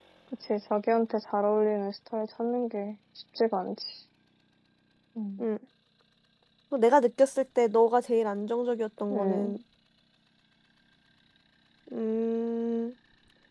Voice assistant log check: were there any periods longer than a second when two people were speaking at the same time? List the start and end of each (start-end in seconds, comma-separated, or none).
none